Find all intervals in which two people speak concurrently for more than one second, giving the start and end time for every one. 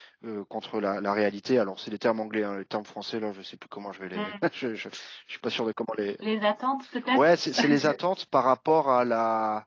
none

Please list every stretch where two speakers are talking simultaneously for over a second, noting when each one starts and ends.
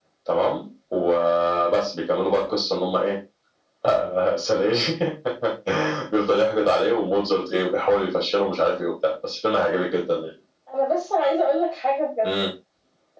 none

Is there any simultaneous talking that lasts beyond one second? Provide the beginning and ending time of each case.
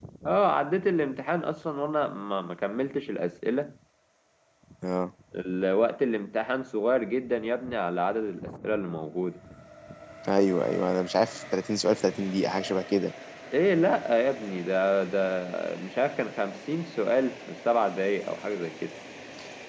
none

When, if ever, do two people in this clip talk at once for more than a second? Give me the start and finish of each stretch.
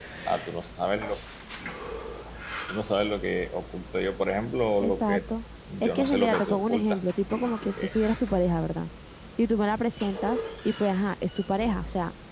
5.8-7.0

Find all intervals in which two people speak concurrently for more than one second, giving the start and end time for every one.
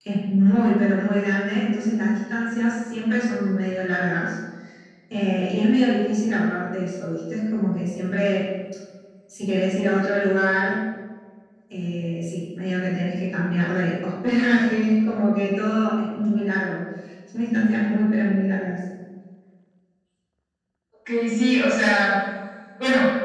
none

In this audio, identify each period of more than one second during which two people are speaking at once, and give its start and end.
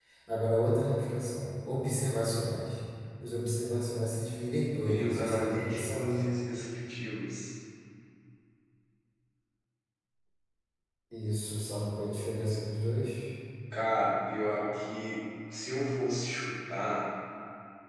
4.8-6.1

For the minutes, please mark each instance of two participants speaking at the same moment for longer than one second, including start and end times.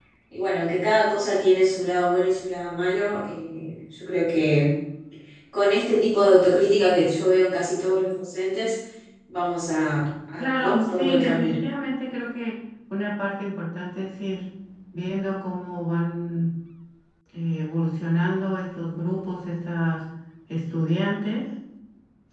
10.4-11.6

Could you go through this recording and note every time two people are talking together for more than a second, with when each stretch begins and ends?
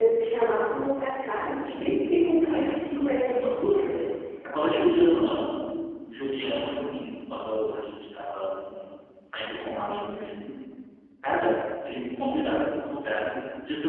1.5-4.0

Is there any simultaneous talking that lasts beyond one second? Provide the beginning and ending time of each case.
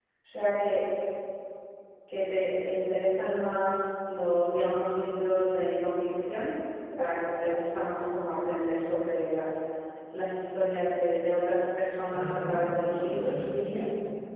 12.1-13.8

